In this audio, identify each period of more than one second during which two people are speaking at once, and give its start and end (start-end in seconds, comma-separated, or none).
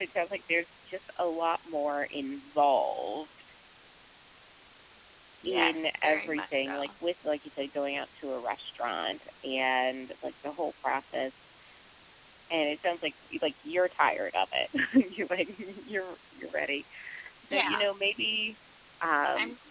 5.5-6.9